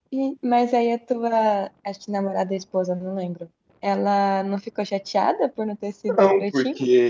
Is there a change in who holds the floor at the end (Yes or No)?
Yes